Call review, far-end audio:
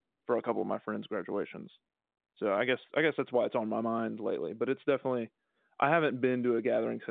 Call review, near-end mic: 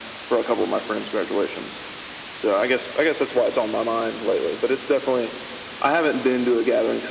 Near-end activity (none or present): none